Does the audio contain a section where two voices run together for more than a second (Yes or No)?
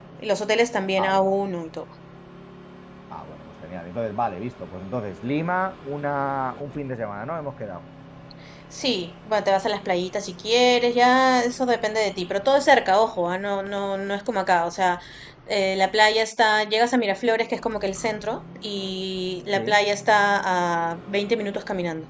No